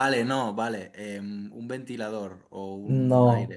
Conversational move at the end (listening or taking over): taking over